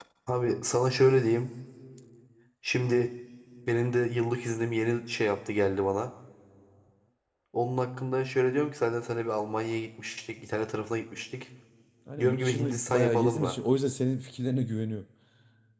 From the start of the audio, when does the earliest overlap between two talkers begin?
12 s

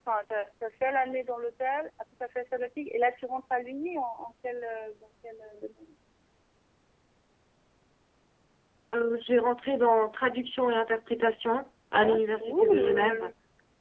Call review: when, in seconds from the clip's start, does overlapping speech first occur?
12 s

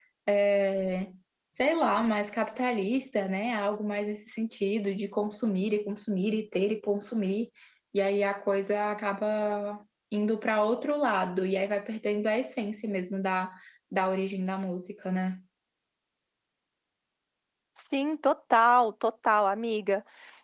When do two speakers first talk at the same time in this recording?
none

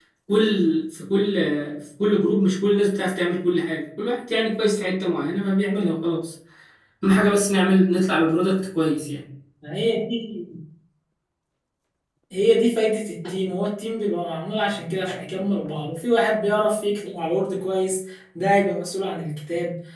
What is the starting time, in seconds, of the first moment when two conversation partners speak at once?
none

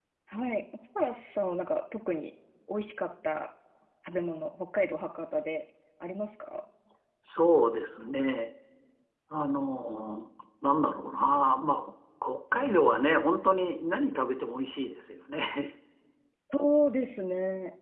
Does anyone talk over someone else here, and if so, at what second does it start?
none

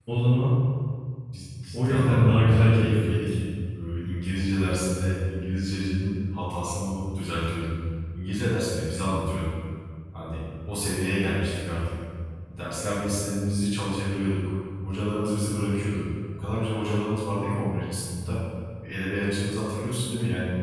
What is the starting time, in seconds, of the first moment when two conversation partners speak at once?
2 s

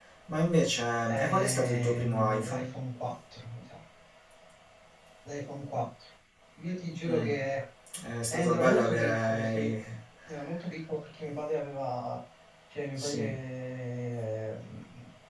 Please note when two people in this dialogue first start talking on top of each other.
1 s

